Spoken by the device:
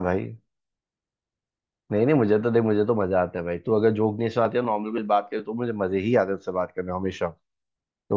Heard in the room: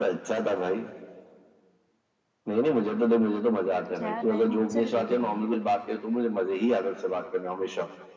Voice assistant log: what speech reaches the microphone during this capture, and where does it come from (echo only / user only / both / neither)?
both